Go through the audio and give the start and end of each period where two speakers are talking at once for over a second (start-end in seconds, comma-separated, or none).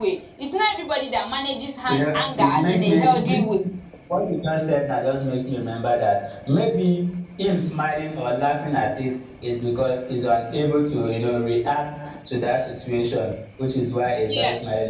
1.9-3.4